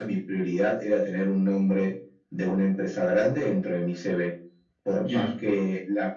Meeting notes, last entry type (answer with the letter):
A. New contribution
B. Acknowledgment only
B